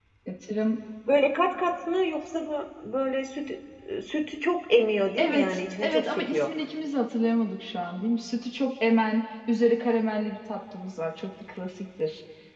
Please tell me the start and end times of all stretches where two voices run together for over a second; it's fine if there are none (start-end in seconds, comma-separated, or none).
5.2-6.5